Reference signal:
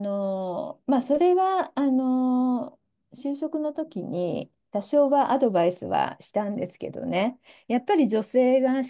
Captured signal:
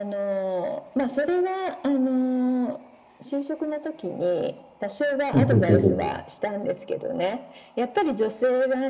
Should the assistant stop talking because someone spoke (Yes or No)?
Yes